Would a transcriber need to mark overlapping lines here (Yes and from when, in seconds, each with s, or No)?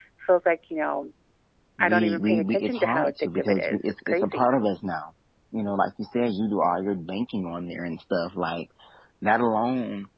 Yes, from 1.8 s